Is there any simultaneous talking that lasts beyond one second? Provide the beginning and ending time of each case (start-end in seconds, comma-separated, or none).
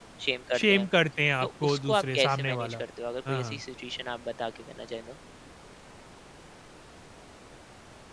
1.4-2.8